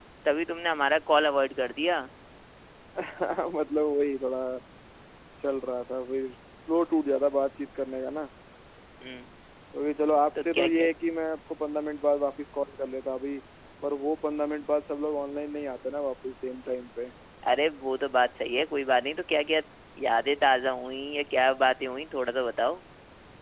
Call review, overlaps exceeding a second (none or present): none